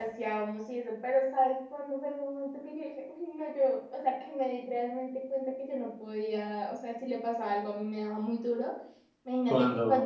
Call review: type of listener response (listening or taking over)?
listening